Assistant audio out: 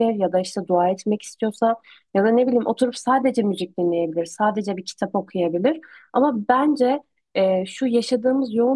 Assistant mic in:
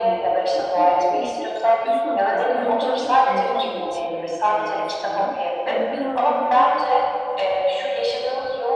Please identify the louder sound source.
echo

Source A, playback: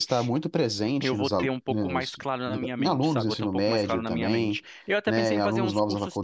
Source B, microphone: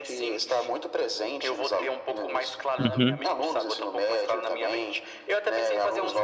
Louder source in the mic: user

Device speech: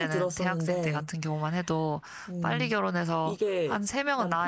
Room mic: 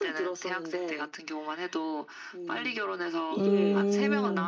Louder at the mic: user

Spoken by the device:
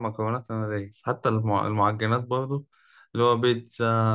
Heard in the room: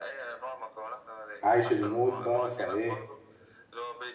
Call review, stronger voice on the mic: user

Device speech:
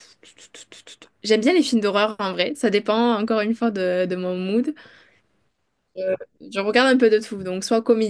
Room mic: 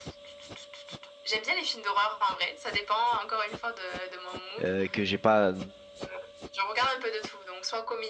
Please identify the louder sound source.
user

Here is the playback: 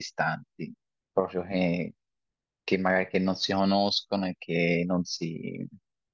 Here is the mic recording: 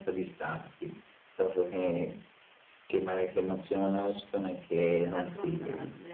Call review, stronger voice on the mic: echo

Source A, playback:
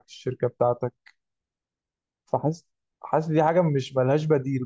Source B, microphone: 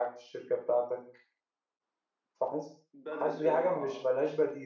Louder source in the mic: echo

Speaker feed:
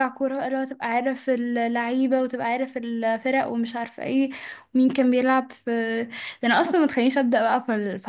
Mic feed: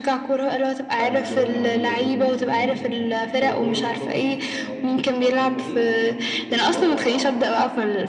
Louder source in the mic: echo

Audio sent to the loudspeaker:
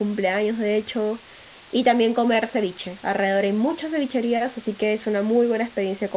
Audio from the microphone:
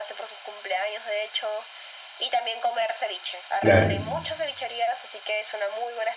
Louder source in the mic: user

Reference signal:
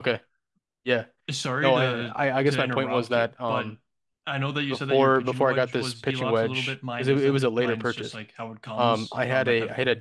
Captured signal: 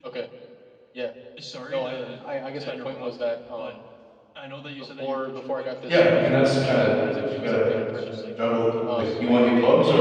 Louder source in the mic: user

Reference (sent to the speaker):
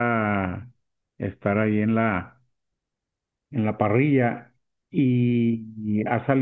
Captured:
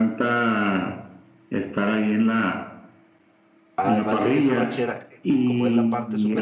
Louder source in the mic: echo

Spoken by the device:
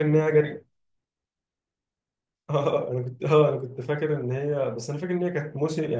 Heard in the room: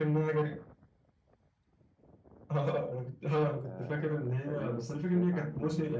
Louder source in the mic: echo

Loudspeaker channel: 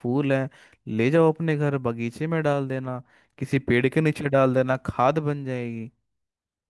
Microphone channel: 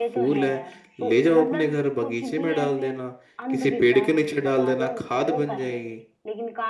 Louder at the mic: echo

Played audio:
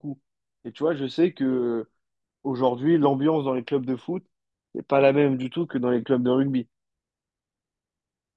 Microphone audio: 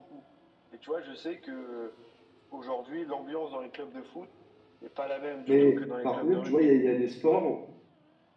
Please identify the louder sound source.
user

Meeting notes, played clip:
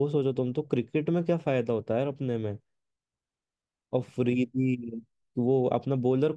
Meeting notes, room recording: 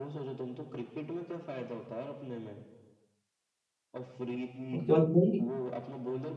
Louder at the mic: user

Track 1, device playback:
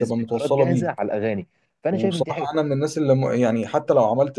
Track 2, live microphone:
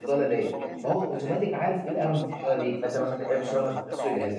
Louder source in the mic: user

